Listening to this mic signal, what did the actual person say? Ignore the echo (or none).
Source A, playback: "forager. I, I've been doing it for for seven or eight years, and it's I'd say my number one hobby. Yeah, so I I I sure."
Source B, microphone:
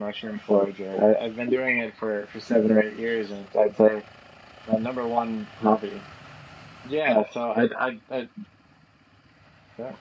none